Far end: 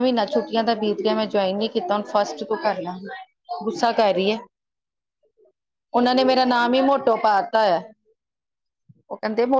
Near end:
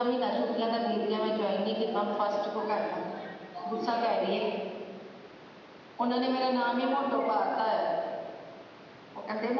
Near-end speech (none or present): none